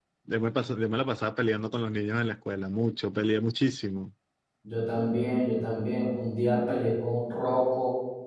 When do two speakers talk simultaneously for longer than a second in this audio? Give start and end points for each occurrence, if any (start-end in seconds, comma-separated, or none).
none